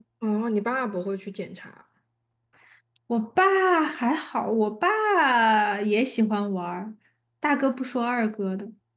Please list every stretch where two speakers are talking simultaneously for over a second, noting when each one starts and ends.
none

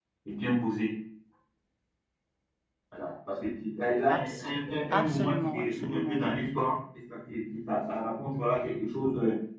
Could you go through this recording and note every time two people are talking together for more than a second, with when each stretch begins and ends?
4.9-6.4

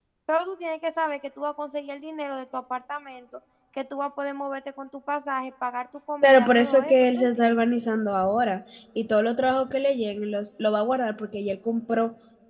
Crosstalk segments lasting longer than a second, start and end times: 6.2-7.7

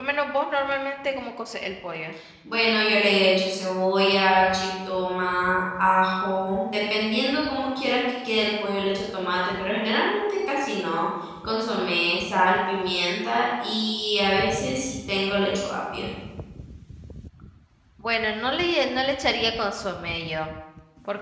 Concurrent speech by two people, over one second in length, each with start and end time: none

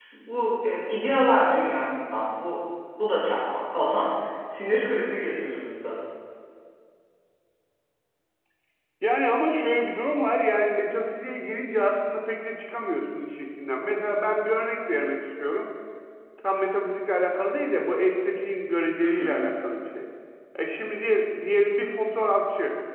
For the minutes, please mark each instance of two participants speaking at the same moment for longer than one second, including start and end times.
none

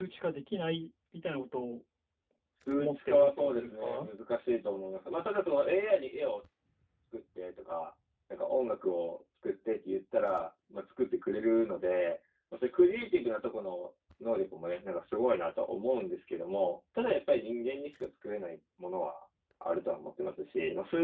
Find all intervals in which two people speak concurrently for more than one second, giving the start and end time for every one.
2.8-4.1

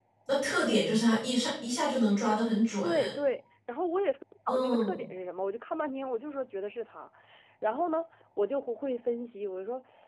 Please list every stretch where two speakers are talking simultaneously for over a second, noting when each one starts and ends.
none

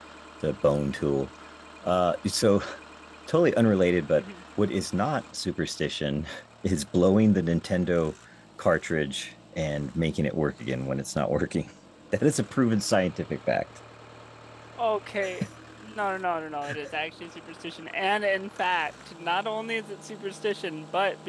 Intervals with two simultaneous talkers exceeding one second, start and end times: none

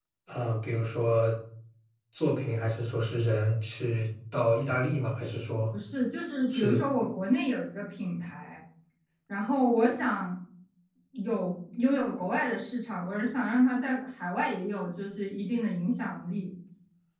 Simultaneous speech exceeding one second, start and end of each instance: none

